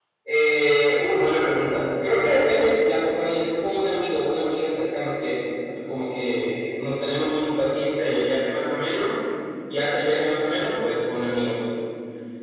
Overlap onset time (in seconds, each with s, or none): none